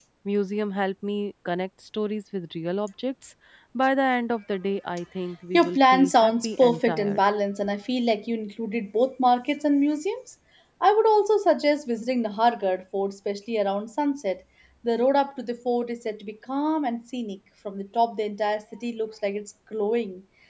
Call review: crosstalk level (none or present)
present